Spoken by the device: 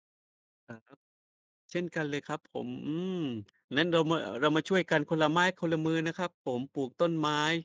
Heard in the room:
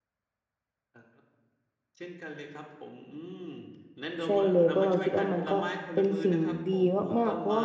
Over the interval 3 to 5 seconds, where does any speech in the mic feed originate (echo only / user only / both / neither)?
both